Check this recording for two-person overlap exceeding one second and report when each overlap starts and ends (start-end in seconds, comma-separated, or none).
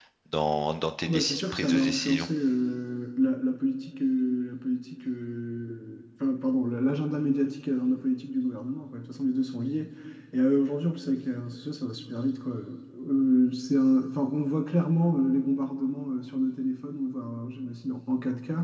1.0-2.3